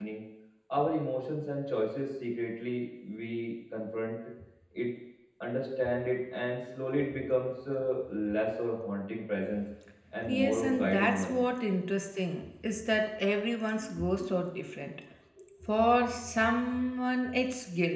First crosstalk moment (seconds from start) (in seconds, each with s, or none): 10.2 s